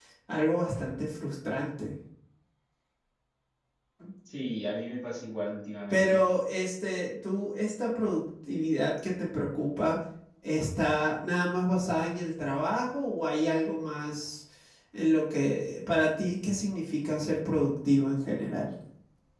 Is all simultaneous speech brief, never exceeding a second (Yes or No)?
Yes